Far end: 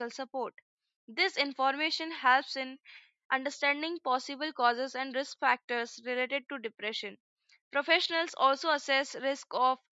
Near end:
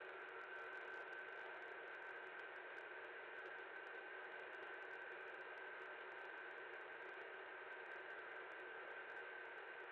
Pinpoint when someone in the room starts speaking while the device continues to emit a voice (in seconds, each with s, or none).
none